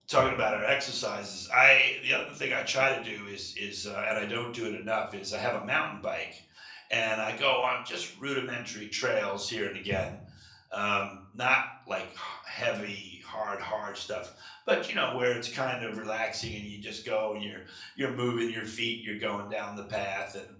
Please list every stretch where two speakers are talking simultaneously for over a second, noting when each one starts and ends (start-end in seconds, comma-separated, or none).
none